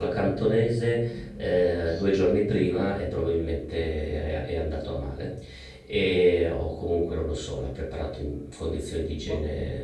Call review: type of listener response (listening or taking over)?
listening